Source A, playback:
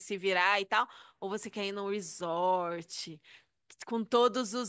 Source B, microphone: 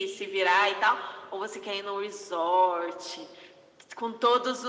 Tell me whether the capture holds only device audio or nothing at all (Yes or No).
Yes